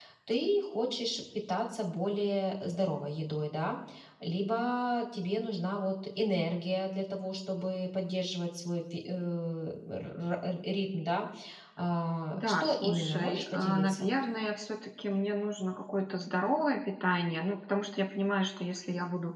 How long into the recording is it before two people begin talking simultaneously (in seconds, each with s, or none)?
12.3 s